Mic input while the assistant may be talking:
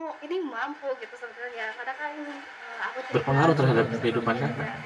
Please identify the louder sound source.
user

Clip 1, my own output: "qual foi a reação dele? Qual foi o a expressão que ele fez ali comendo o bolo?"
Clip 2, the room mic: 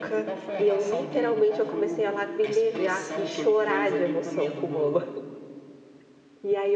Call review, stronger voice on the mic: user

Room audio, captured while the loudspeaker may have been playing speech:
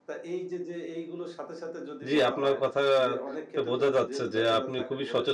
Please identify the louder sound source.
user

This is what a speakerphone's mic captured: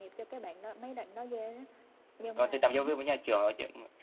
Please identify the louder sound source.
user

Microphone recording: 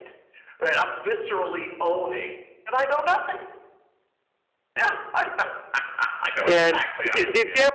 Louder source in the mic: user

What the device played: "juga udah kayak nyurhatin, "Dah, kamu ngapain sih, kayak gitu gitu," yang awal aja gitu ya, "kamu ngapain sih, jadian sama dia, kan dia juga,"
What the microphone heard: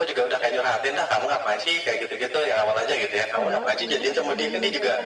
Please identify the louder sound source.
echo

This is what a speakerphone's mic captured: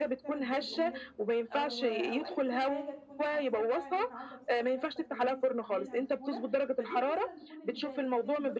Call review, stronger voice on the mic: echo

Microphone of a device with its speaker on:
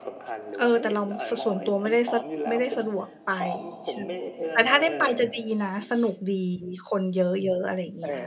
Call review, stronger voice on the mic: user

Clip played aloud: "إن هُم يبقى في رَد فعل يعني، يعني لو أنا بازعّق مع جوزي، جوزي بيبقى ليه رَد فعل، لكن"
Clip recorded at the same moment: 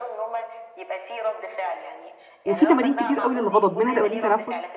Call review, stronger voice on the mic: user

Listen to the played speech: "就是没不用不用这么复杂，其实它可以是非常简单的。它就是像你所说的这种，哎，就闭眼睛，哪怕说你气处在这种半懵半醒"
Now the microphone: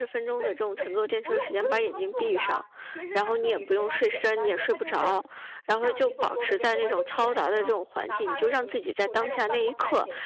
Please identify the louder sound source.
user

